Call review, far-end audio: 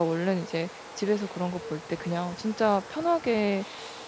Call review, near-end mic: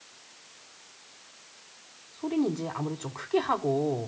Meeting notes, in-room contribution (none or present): present